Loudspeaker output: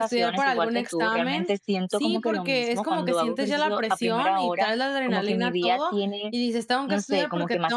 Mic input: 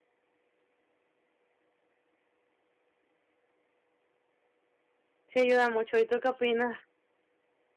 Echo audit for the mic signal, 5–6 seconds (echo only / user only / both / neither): user only